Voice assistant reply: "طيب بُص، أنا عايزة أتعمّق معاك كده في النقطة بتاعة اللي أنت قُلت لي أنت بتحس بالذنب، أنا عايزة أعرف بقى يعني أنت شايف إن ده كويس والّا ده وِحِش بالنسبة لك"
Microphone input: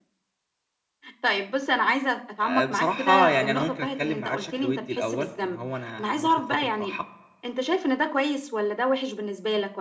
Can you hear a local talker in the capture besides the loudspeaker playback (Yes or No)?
Yes